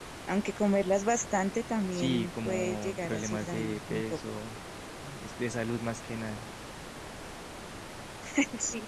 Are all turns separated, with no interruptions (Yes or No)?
No